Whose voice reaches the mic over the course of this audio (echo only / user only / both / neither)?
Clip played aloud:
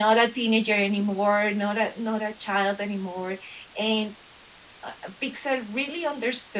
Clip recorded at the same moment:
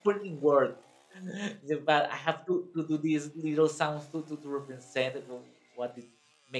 user only